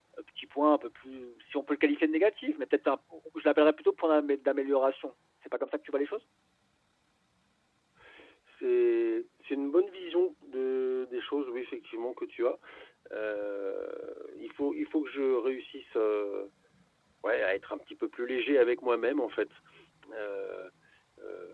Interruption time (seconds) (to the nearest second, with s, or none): none